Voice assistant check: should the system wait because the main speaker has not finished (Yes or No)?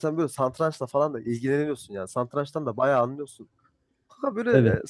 Yes